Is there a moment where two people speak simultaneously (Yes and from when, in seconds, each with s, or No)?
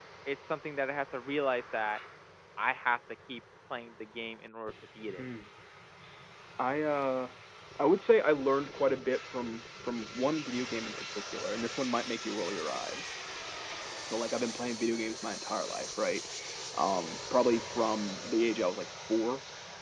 No